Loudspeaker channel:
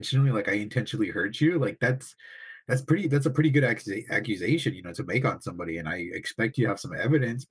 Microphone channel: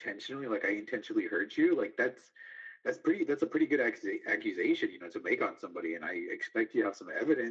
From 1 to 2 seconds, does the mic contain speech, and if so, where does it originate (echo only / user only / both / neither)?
echo only